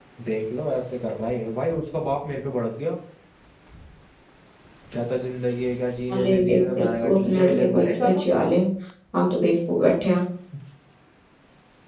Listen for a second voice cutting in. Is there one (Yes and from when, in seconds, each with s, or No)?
Yes, from 6.1 s